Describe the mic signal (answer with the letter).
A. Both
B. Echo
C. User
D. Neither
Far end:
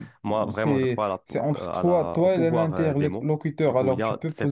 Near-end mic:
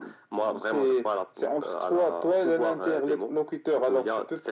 B